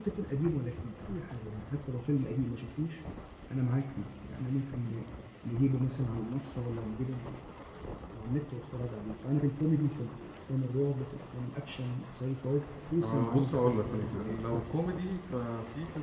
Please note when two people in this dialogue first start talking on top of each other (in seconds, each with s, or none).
13.0 s